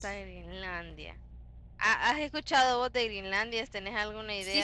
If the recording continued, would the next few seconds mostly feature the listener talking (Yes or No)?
Yes